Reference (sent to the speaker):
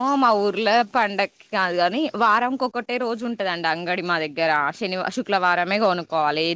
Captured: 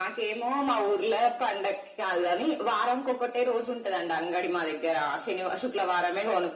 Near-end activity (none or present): none